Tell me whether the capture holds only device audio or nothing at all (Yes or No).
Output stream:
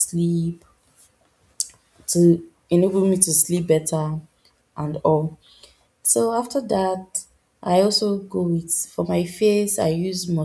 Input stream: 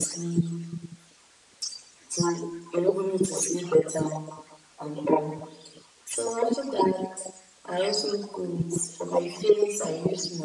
Yes